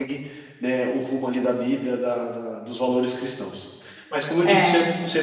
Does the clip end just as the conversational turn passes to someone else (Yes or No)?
Yes